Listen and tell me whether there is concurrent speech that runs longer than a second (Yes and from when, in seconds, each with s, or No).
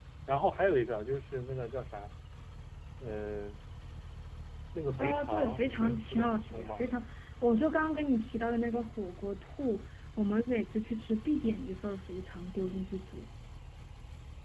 Yes, from 5.0 s